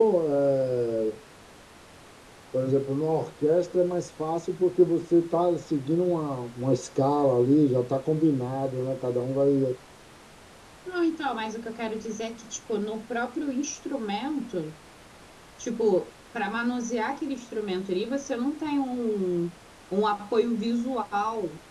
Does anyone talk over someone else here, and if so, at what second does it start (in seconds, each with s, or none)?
none